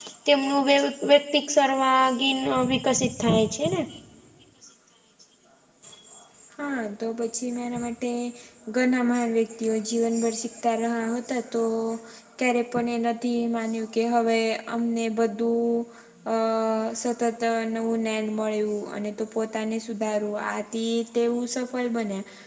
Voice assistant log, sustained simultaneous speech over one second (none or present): none